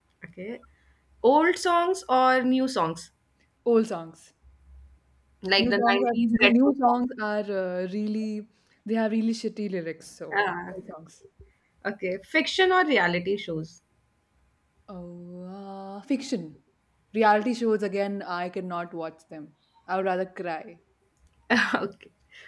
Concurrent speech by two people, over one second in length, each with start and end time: 5.6-7.0

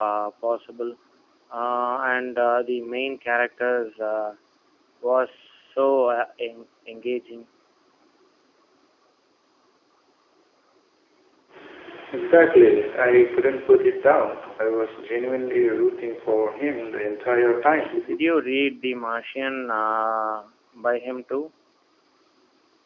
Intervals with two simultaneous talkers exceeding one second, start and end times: none

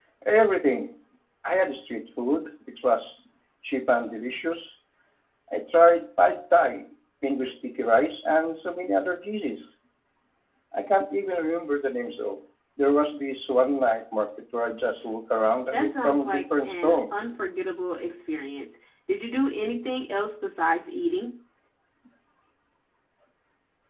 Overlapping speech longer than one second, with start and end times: 15.7-17.1

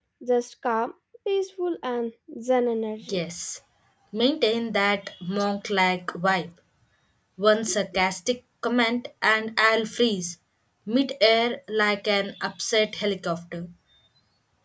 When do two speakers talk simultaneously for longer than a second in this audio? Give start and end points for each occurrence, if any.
none

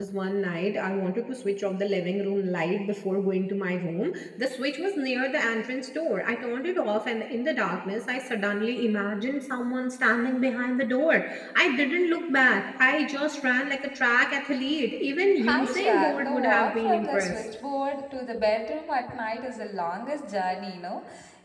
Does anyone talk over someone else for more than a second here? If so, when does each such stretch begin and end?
15.5-17.4

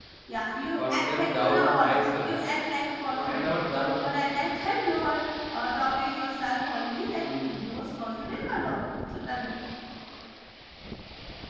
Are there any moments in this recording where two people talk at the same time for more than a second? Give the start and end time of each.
0.8-2.4

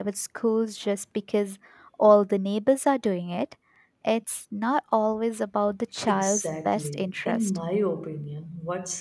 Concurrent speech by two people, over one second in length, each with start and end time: 6.1-7.6

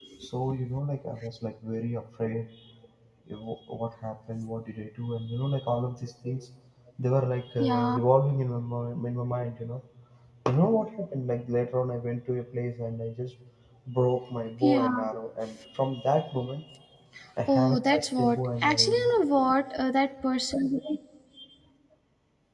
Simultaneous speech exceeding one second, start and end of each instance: 17.5-19.1

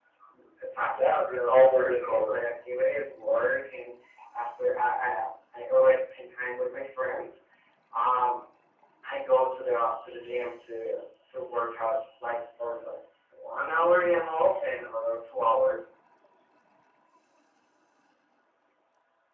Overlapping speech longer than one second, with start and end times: 0.8-2.4

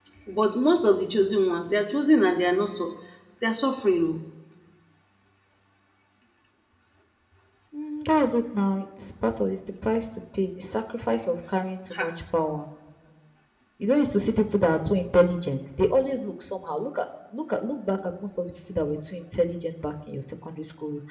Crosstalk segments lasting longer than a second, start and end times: none

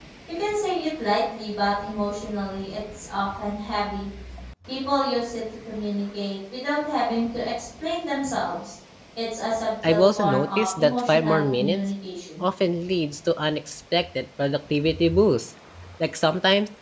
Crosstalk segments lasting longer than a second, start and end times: 9.8-11.8

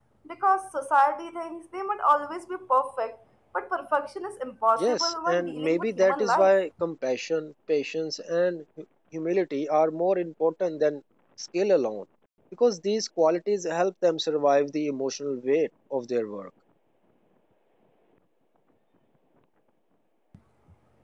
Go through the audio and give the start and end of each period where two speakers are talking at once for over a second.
4.8-6.5

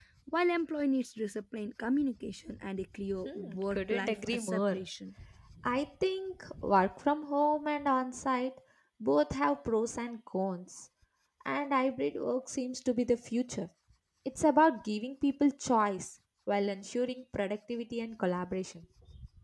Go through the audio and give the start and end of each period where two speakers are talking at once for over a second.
3.2-4.8

